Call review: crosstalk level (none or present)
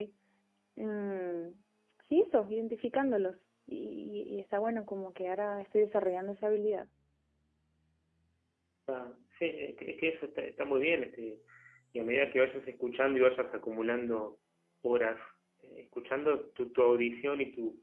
none